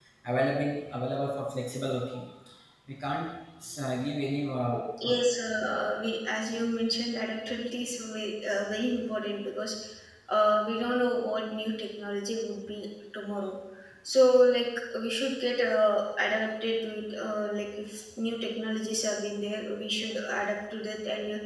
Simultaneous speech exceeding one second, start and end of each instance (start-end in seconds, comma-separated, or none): none